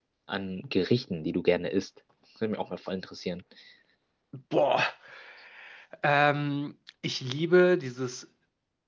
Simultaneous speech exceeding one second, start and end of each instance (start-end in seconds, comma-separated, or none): none